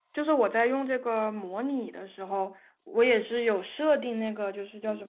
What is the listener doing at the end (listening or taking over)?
listening